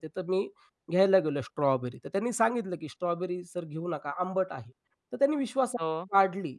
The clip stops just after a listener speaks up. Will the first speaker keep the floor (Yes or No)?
Yes